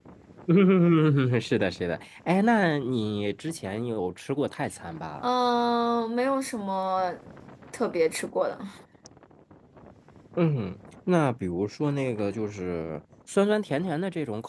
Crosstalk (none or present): none